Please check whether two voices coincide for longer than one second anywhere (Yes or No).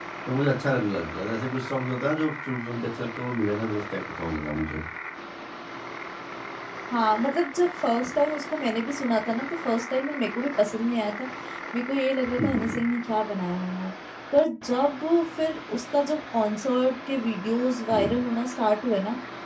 No